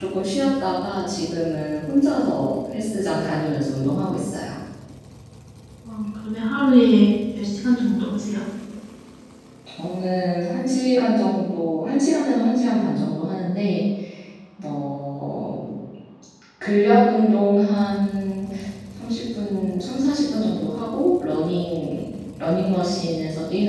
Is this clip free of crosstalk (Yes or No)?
Yes